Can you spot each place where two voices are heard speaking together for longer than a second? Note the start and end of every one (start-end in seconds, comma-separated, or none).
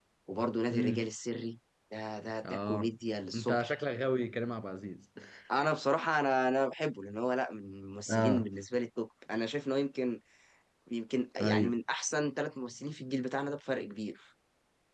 none